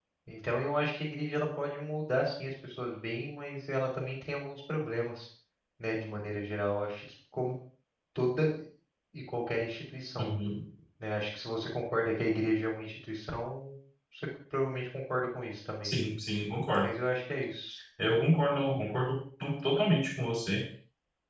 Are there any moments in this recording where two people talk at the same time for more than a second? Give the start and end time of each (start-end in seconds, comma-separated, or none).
none